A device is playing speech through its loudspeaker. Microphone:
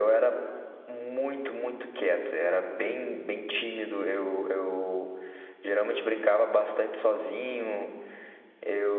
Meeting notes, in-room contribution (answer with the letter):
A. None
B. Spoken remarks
A